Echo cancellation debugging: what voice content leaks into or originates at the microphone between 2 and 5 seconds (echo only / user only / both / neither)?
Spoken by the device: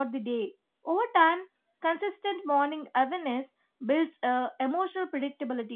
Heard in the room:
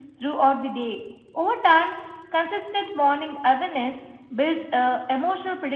echo only